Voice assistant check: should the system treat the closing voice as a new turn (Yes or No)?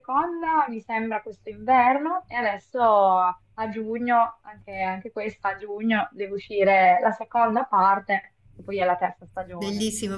Yes